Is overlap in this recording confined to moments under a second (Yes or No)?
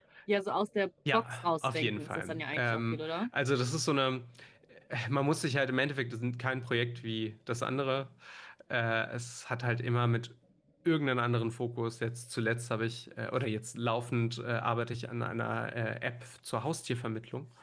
No